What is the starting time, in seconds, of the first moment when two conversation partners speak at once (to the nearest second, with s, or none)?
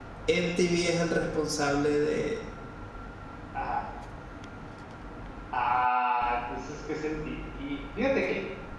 none